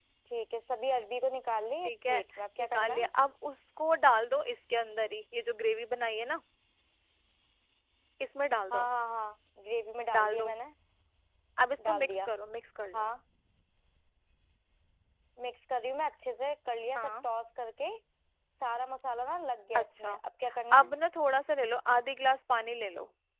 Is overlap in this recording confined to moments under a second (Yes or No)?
Yes